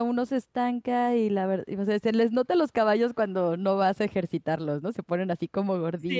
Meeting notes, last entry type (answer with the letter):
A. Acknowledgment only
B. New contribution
B